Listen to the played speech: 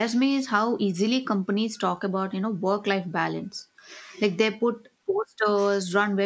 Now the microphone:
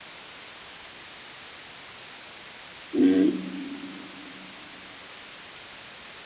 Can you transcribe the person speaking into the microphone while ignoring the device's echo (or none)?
Mm,